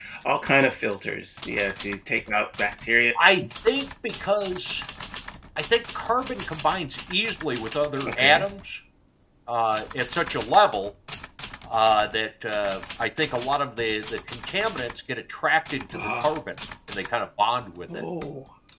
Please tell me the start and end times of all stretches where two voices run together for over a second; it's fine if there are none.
none

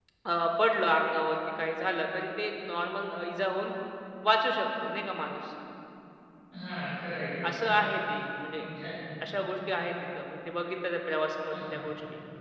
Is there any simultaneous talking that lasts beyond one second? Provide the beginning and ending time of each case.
none

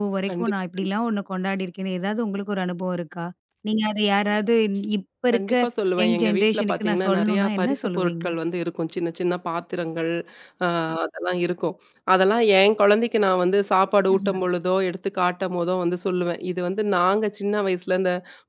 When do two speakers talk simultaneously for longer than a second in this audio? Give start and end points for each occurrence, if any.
6.0-8.2

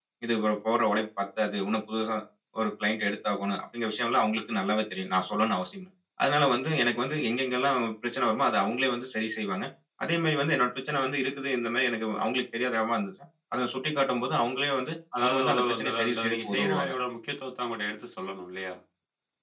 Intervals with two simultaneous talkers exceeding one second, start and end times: 15.2-16.9

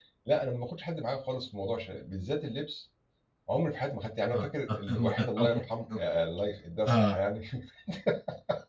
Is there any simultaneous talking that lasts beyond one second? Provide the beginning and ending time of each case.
4.3-5.6

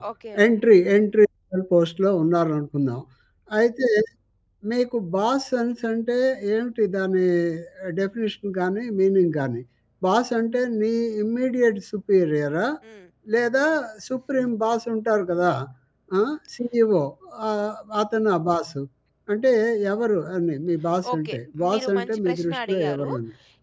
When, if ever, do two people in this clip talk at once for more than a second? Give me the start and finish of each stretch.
21.7-23.1

